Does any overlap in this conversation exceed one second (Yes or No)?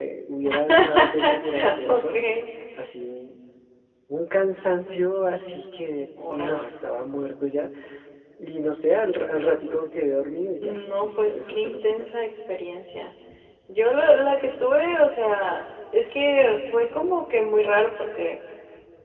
Yes